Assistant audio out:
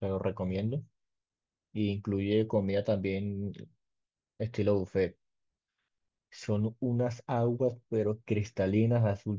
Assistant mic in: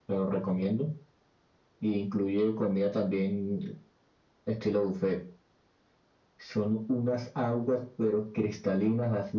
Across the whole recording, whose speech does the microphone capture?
echo only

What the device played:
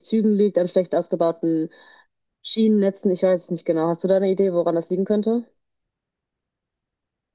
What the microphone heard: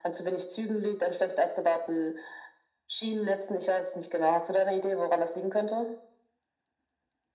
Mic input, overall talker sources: echo only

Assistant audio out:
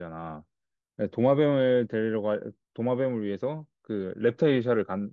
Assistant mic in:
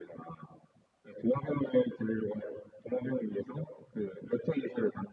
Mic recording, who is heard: echo only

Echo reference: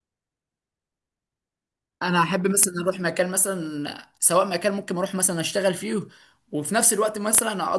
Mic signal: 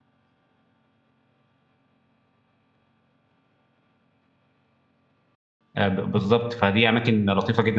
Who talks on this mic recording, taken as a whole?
user only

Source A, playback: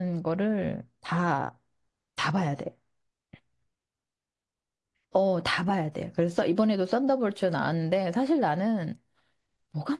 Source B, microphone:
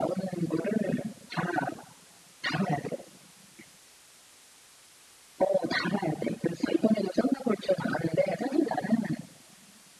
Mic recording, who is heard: echo only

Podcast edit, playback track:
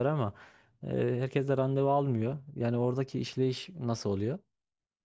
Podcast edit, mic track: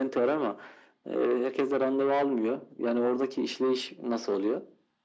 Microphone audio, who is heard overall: echo only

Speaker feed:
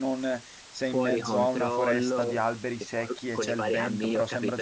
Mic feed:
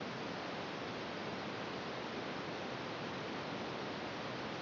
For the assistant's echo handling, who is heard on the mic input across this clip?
neither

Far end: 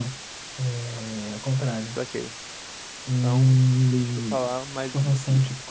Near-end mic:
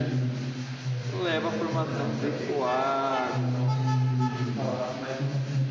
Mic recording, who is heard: both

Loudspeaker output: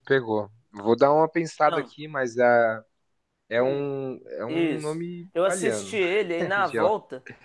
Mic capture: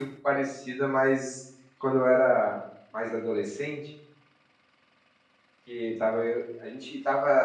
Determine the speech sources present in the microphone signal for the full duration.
user only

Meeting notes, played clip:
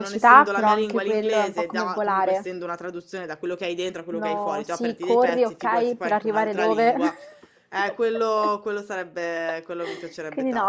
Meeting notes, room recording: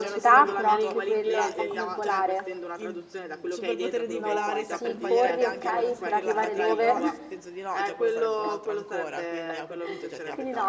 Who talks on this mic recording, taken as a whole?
both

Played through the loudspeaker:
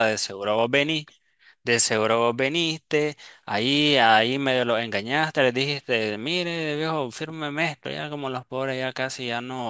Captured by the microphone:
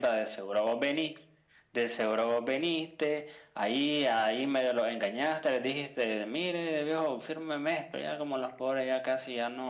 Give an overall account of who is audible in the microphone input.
echo only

